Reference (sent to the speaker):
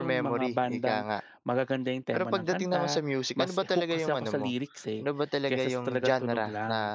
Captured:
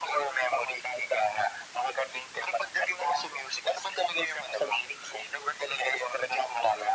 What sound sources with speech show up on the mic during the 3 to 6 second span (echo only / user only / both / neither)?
echo only